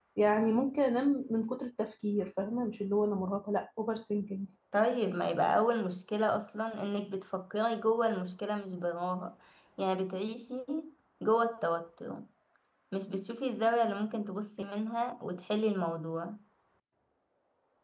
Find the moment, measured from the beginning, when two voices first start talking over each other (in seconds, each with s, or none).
none